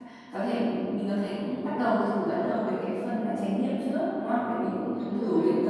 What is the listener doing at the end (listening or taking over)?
listening